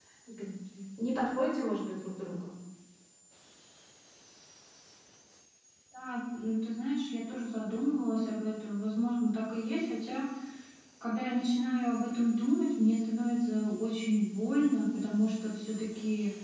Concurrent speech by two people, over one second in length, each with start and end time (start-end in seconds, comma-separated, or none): none